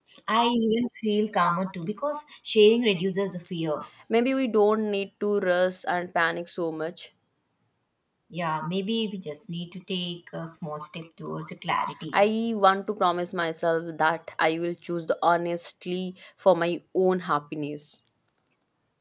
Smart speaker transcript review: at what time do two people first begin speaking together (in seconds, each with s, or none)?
none